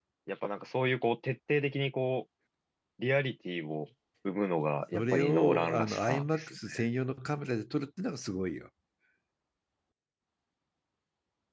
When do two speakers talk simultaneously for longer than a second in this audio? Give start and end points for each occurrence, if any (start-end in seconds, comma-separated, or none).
4.9-6.6